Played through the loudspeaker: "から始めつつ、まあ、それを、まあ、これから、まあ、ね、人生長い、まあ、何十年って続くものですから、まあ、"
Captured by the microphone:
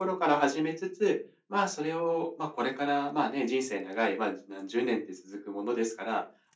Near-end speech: none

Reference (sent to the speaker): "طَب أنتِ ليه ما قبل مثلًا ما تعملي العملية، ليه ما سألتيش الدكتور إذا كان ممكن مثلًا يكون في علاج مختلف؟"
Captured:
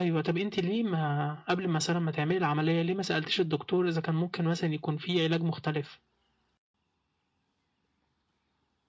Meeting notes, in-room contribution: none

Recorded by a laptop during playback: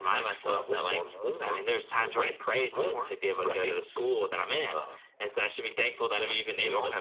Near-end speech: none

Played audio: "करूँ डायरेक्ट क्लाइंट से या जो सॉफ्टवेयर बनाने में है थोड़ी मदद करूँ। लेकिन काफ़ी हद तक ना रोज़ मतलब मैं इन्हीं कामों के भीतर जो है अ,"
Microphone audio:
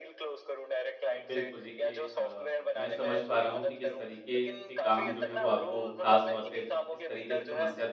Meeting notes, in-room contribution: present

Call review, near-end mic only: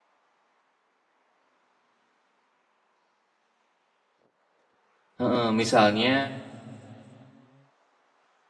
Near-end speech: present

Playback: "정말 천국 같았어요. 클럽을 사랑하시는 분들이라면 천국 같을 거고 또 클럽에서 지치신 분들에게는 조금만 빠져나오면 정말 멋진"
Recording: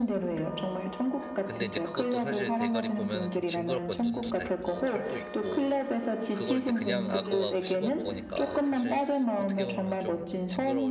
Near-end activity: present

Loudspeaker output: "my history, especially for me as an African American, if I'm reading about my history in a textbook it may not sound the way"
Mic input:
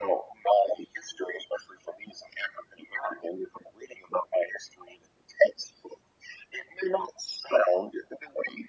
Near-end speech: none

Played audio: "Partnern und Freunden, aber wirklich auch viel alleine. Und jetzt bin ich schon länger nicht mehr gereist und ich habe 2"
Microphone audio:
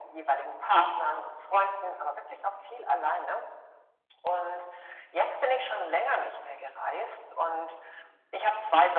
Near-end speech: none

